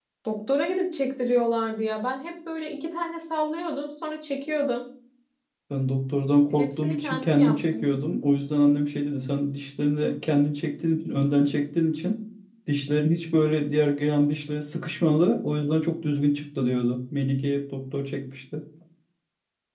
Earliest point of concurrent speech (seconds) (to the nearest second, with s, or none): 7 s